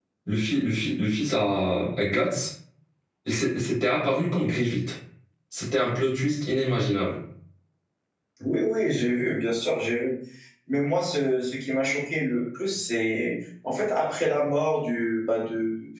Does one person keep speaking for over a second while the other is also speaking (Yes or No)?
No